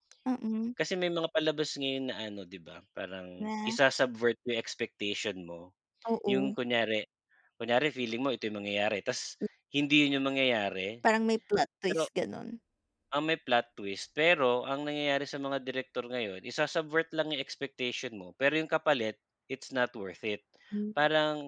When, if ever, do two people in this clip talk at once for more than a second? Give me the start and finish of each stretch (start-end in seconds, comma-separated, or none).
none